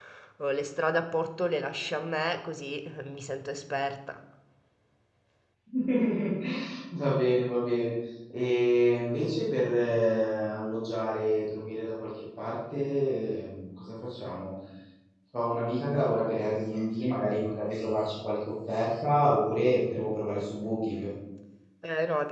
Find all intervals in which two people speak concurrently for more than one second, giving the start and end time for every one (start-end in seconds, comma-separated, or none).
none